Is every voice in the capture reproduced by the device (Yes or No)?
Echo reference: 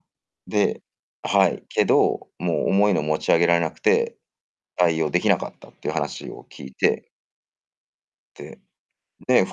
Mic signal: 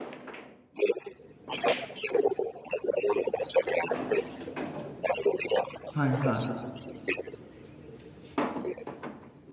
No